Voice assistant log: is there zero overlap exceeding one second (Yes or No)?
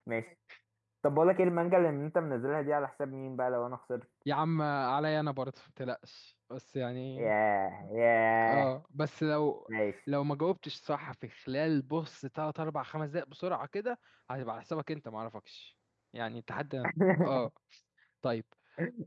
Yes